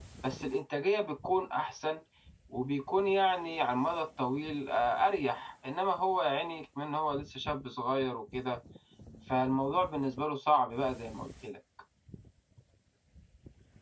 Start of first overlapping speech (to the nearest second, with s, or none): none